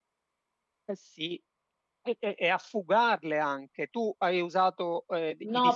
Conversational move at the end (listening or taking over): taking over